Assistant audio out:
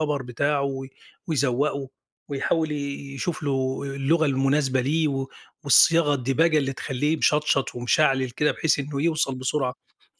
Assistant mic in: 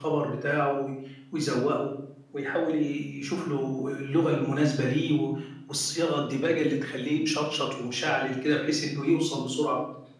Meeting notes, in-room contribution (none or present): none